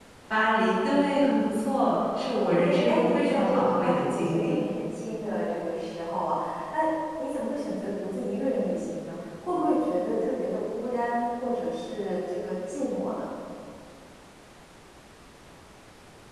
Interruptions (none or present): present